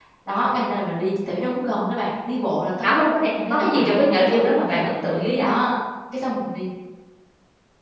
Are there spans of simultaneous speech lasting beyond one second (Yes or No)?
Yes